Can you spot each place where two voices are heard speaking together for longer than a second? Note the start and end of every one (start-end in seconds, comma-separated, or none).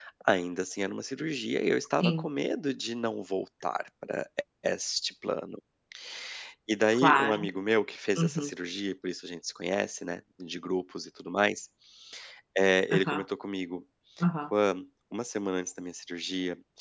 none